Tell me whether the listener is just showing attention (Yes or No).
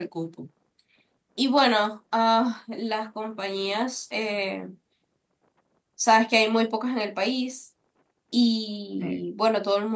Yes